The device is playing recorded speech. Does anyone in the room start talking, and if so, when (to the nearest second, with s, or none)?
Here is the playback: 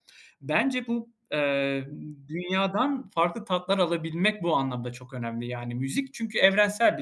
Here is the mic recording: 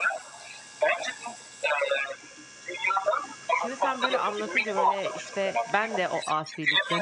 4 s